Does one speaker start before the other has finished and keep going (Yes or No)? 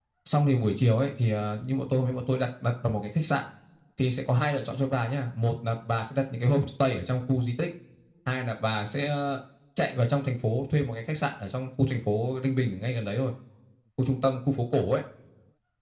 No